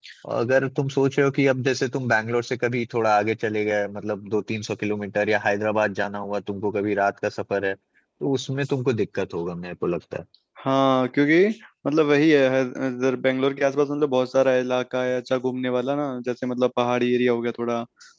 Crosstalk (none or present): none